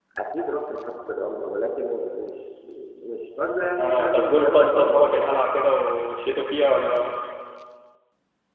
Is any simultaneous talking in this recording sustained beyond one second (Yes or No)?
Yes